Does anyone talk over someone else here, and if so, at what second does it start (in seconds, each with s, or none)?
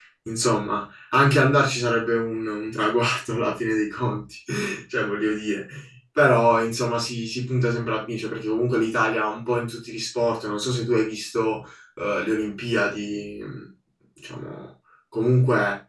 none